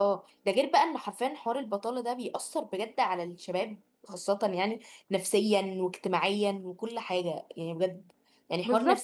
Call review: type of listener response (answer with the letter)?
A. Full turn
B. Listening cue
B